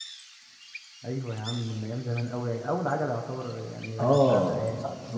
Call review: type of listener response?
taking over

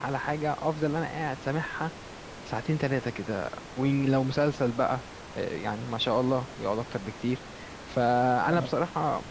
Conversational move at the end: listening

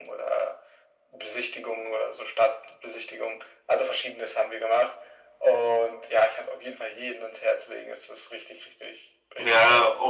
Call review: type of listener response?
taking over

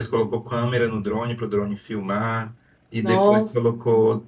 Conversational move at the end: listening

